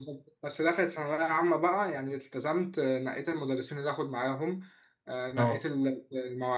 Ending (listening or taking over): listening